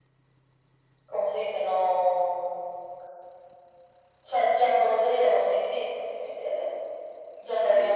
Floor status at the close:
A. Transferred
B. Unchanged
B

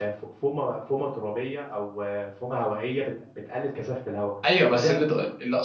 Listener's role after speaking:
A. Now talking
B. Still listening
A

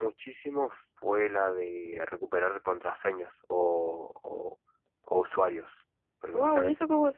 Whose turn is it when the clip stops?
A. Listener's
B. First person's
A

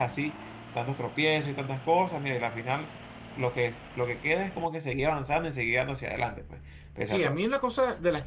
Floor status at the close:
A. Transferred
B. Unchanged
A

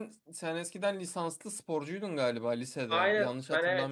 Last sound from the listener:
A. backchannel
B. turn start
B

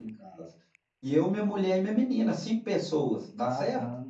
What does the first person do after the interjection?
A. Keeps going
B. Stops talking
B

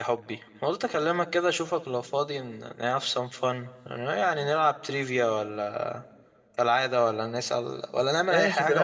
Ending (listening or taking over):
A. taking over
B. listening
A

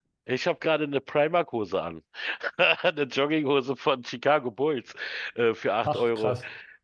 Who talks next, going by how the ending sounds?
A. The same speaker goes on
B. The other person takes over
A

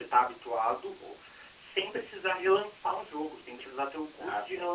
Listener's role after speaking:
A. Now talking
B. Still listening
B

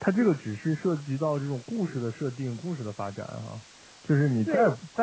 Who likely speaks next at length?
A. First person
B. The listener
A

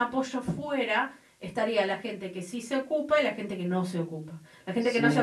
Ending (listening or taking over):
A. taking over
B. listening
B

